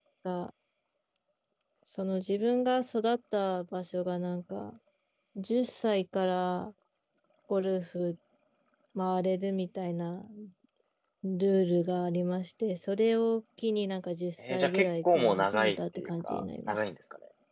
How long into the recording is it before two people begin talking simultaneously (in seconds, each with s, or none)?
14.4 s